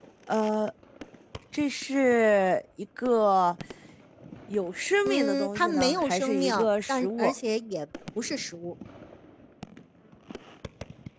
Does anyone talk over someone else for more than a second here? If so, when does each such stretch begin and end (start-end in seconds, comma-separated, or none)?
5.0-7.3